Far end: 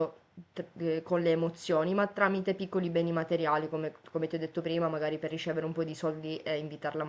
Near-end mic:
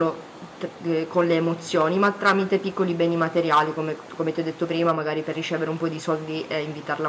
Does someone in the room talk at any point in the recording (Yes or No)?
No